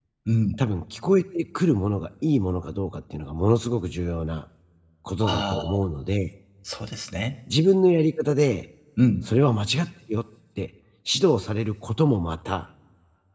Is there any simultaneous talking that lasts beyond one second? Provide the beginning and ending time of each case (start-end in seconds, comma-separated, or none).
none